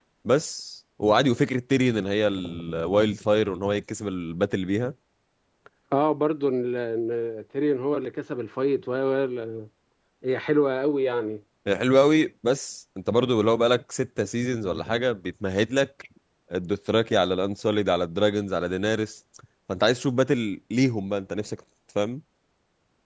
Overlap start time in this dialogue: none

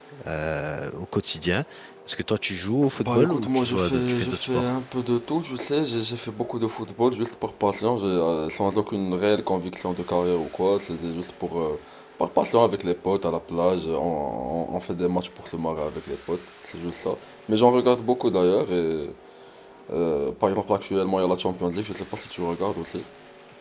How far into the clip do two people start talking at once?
3.0 s

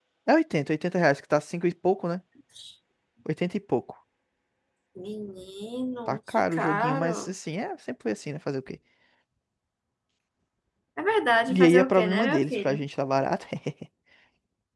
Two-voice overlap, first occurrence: 6.1 s

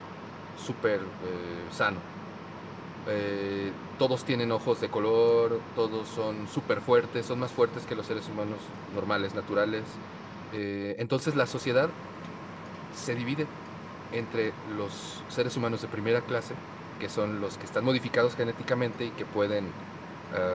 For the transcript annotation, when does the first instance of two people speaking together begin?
none

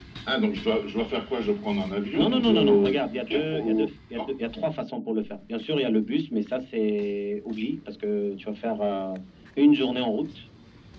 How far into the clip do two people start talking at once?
2.1 s

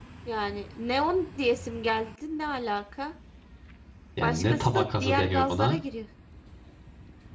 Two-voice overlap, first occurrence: 4.2 s

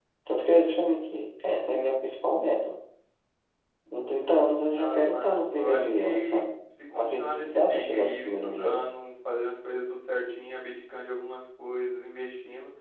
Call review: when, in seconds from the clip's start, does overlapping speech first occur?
4.8 s

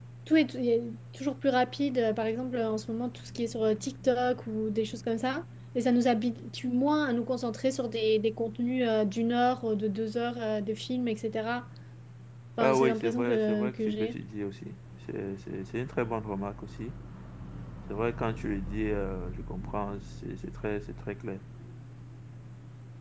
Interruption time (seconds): 12.6 s

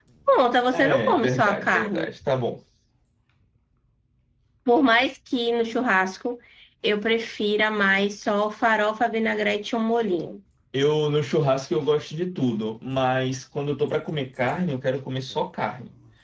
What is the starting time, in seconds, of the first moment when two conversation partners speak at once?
0.7 s

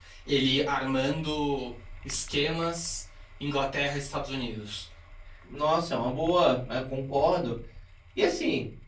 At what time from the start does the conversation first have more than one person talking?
none

